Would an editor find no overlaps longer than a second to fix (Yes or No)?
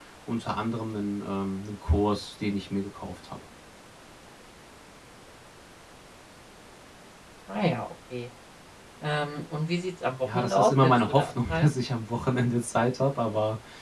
No